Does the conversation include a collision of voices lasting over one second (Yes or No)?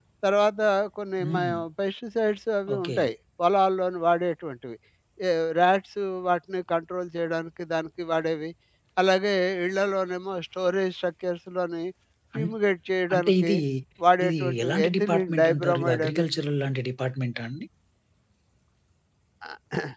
Yes